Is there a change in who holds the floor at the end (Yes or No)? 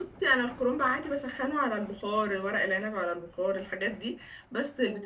No